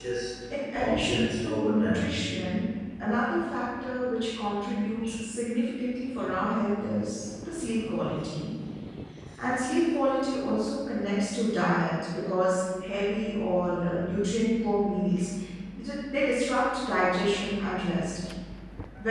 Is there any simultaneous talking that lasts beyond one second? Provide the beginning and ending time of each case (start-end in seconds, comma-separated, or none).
0.8-2.1